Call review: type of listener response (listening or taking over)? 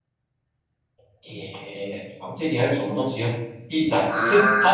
listening